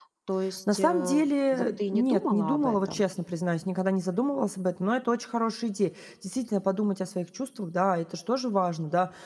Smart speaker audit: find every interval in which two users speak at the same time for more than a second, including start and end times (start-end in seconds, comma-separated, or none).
0.7-3.0